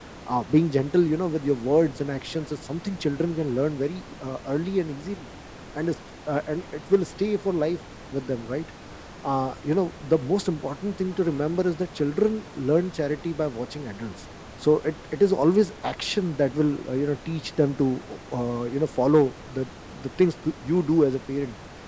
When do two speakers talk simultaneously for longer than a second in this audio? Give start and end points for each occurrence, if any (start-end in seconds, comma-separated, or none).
none